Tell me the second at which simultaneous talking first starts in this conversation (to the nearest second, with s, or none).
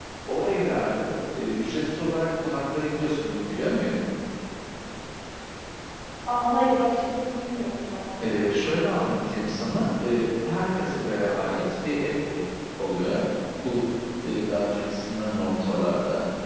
none